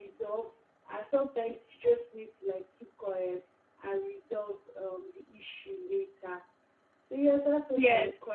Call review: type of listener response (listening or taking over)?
listening